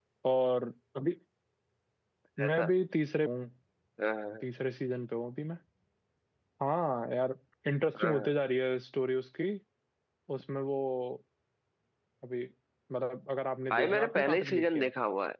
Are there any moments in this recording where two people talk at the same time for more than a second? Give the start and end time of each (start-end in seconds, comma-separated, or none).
13.7-14.9